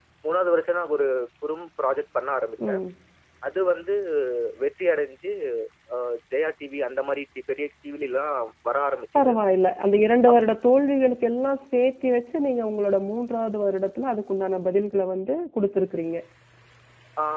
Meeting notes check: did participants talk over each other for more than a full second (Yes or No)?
No